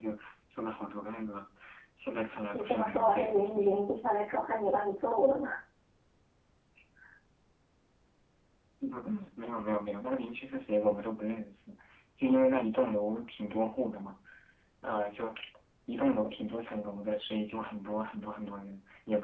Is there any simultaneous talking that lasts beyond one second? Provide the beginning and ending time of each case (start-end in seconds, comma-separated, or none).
2.5-3.8